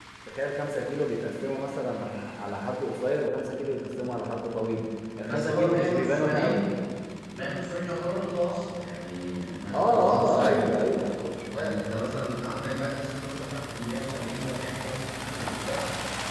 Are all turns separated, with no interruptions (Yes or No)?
No